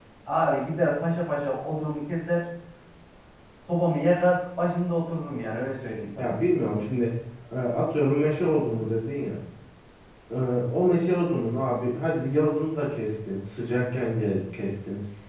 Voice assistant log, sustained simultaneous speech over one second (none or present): none